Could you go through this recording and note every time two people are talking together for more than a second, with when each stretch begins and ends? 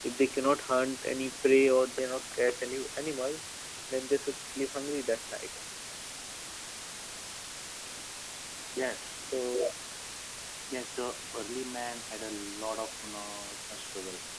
none

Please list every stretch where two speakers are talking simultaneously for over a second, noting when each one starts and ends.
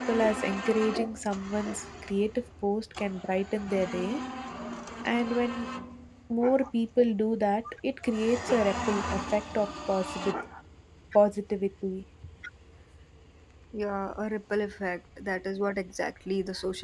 none

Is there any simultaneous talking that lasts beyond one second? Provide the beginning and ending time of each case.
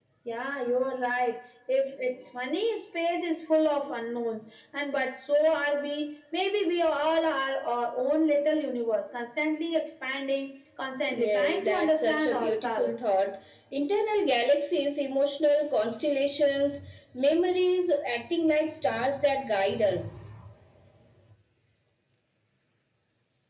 11.1-12.9

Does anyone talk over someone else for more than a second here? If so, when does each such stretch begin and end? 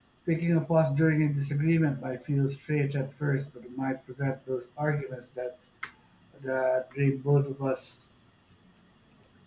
none

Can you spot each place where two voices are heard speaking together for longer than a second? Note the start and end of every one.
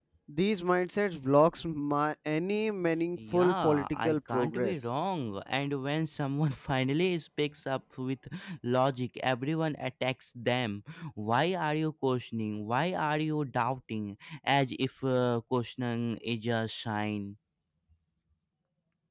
3.3-4.9

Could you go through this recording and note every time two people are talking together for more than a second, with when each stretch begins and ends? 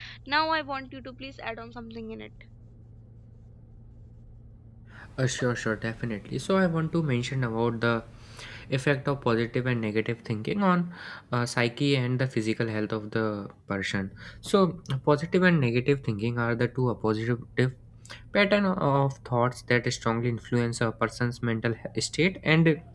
none

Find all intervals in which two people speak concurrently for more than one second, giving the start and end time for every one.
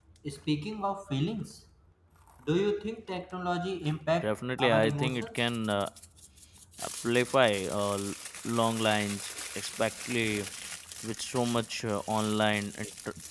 4.2-5.4

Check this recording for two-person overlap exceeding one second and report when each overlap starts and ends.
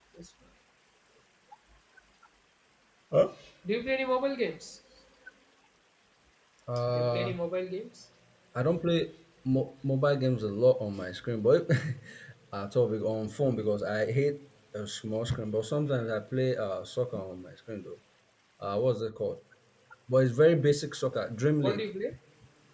none

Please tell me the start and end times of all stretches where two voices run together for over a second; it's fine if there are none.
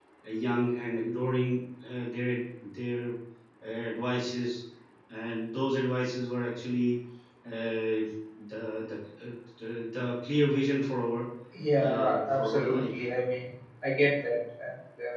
11.7-13.0

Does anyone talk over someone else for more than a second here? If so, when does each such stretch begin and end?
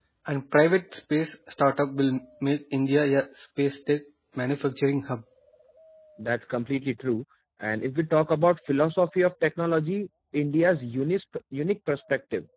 none

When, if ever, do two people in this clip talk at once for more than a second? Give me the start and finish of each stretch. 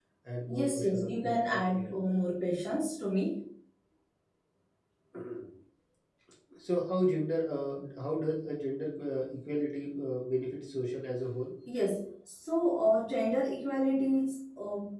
0.6-1.9

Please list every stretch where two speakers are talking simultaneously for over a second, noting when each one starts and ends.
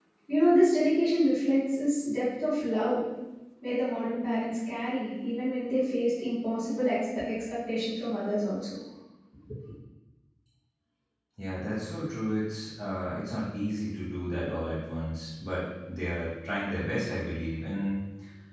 none

